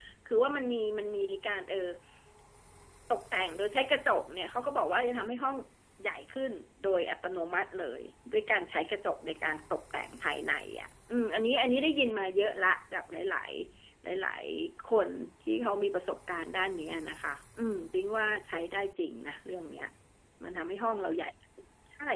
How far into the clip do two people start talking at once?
none

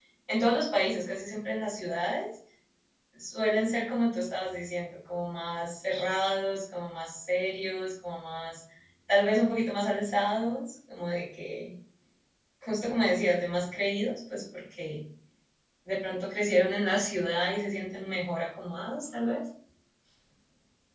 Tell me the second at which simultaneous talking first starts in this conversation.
none

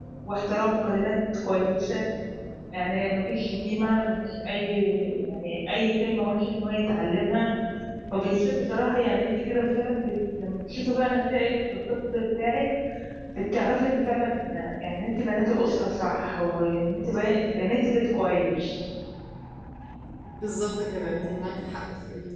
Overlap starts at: none

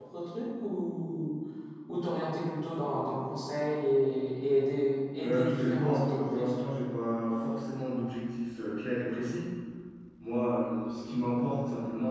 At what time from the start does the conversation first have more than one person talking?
5 s

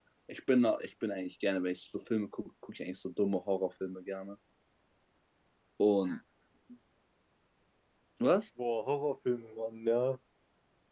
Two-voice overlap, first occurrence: none

